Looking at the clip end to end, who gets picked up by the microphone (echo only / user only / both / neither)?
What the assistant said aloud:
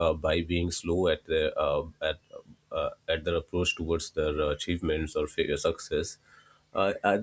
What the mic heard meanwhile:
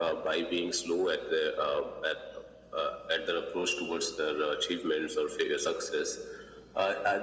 echo only